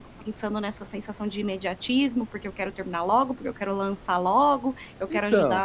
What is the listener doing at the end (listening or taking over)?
listening